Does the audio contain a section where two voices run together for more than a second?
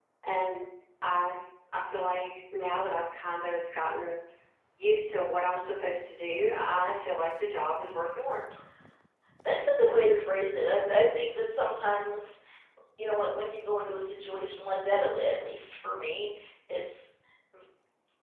No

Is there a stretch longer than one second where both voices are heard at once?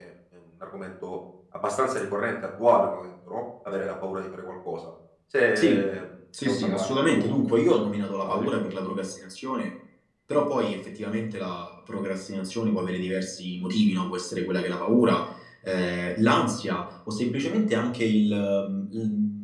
Yes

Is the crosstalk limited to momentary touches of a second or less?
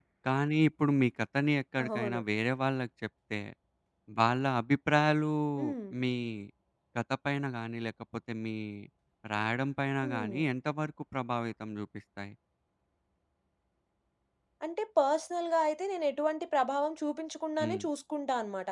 Yes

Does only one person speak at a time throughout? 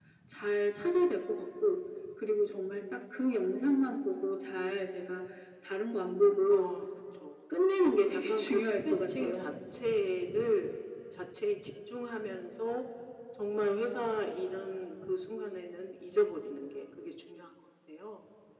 No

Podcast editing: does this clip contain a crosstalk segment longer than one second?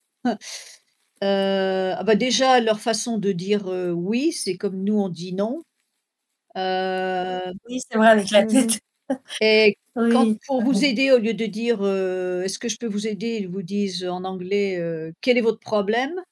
No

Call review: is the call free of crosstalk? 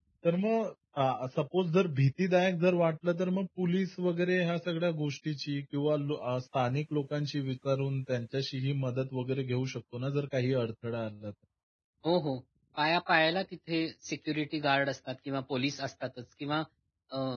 Yes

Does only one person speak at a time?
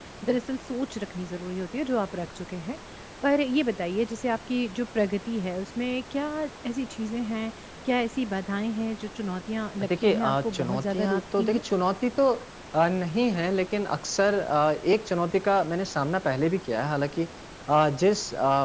No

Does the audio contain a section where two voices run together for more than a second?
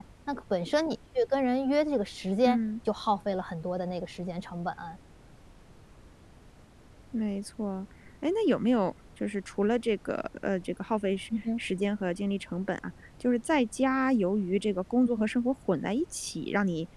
No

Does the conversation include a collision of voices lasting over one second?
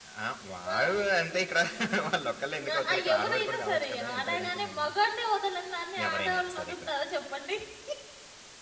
Yes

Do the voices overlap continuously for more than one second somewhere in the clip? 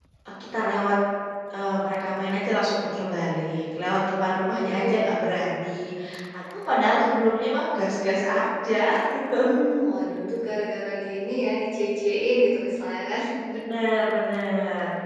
No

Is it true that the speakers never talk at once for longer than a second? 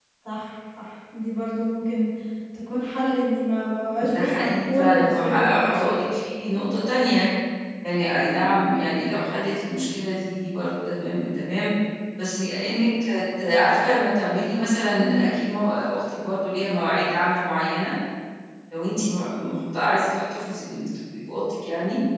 No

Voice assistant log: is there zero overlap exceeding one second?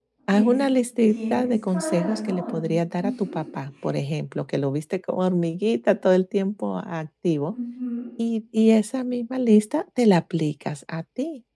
No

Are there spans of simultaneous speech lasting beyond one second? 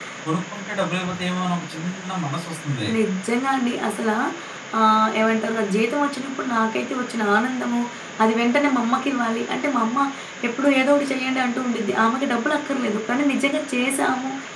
No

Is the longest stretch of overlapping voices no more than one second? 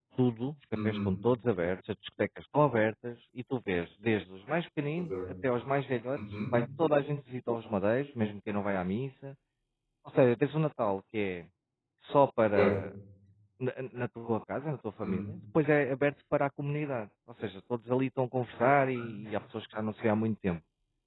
Yes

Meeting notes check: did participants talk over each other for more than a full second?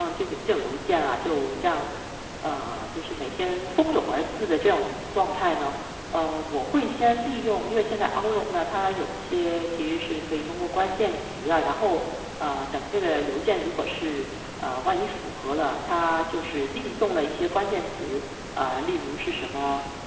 No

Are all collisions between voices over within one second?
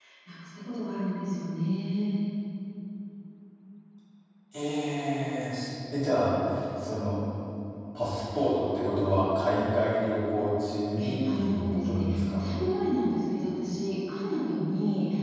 No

